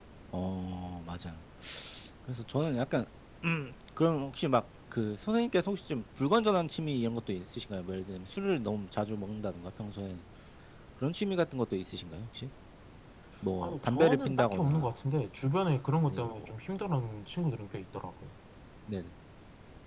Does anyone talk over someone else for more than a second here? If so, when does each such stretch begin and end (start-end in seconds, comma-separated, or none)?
13.6-14.9